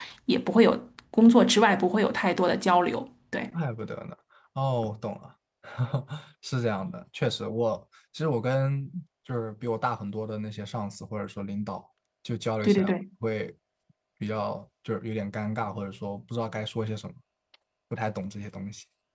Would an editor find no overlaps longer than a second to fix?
Yes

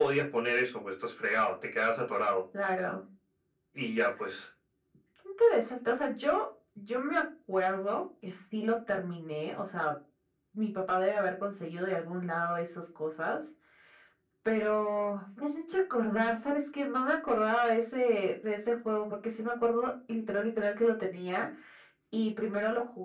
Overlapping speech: No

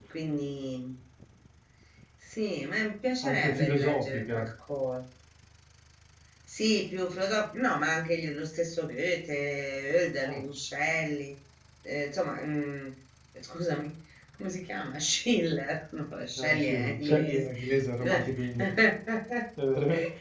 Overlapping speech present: Yes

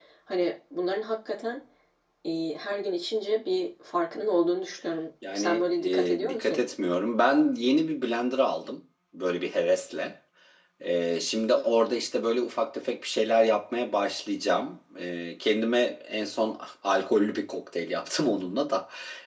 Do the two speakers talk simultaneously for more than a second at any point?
Yes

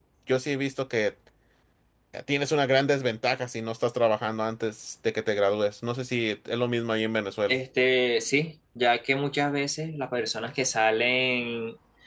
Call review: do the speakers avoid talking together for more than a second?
Yes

